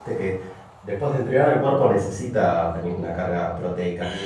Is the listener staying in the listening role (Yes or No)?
No